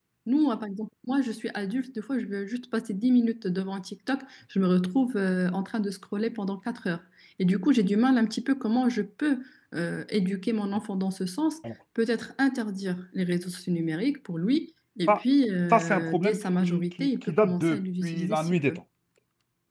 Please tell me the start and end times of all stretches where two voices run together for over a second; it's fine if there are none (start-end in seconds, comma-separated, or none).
15.7-18.8